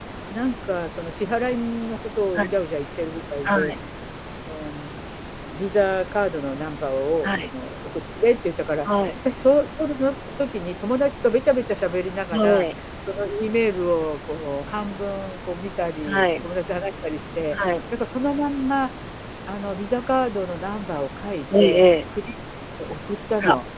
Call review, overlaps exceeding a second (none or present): none